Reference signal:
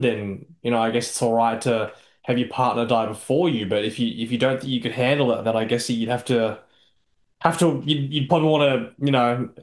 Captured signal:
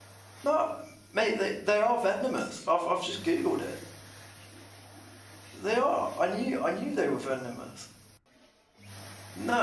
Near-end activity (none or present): present